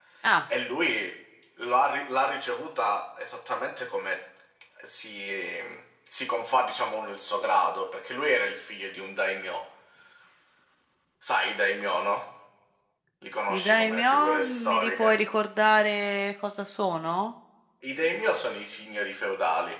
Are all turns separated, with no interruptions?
No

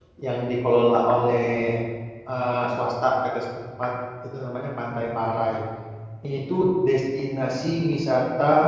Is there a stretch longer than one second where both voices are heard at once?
No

